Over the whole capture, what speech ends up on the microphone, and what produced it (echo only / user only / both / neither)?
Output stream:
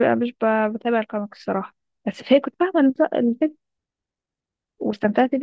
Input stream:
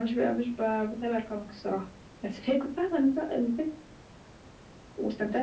echo only